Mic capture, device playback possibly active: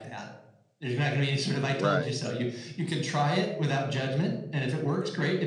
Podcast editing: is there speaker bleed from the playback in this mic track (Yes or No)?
Yes